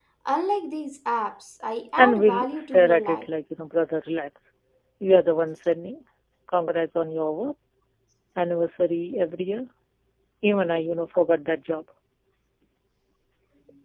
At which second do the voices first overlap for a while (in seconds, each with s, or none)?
2.0 s